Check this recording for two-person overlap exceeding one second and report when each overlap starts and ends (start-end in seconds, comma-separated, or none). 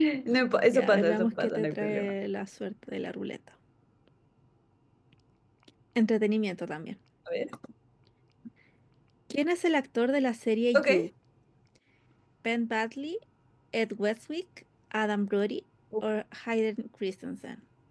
0.7-2.1